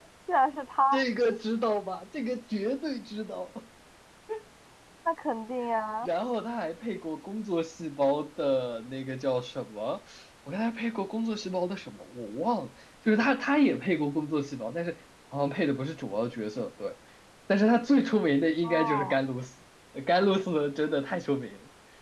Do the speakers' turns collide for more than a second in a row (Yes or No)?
No